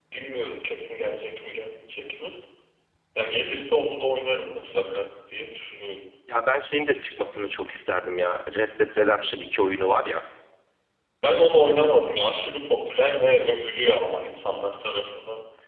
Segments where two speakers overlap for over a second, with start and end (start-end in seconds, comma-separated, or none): none